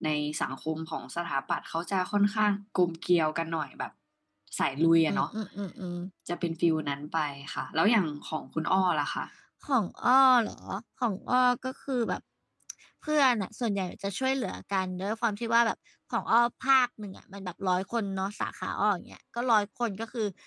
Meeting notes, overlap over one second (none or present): none